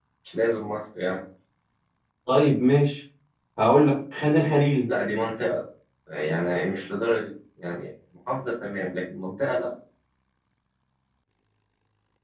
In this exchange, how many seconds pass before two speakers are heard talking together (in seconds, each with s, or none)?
none